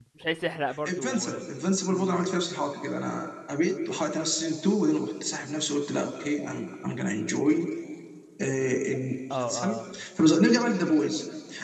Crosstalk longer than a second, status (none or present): none